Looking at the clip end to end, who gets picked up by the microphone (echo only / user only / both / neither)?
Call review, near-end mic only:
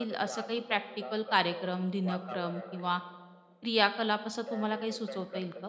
both